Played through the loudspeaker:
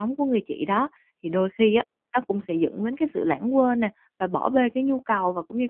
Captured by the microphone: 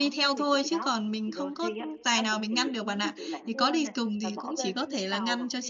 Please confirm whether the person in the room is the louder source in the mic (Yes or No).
Yes